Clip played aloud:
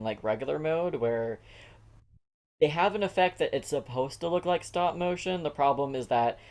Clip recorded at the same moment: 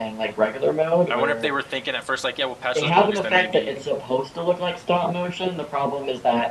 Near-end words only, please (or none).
I wonder if they were thinking at first like, yeah, we'll patch those bugs, then maybe